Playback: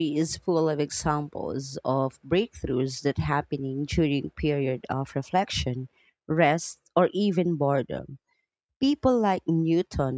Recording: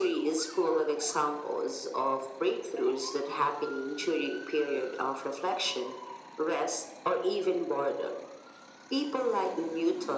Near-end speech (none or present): none